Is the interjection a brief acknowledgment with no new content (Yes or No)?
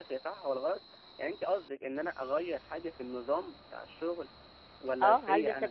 No